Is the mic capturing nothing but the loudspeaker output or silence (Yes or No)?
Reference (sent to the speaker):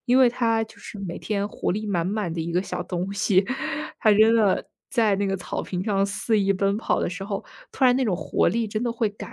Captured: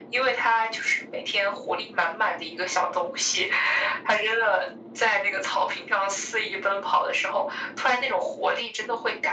Yes